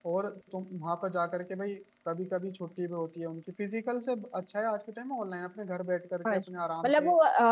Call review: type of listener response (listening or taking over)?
taking over